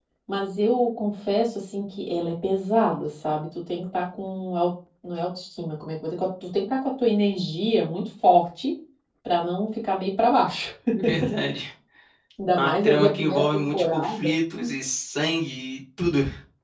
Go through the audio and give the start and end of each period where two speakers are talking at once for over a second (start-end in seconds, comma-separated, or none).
12.6-14.4